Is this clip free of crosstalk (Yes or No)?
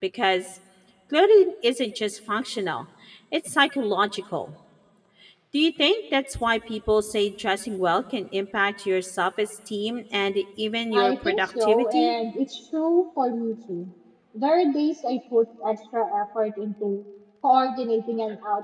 No